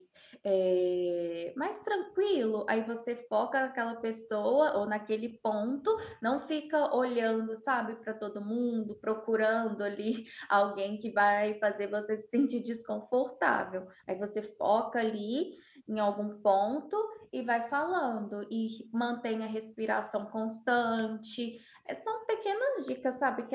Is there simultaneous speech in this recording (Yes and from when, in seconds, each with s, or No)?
No